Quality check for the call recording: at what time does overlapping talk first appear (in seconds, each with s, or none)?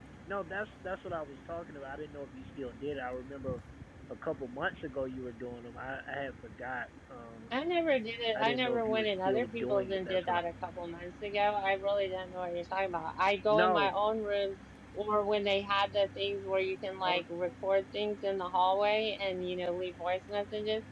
8.3 s